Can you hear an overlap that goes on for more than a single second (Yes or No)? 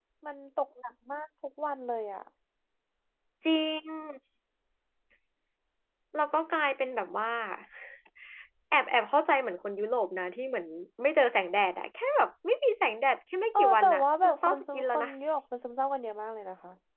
Yes